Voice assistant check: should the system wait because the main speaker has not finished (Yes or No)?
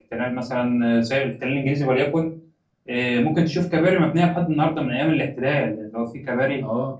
No